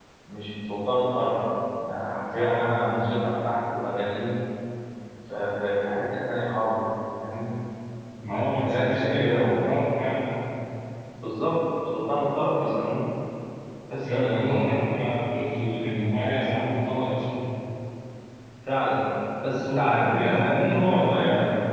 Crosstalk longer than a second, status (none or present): present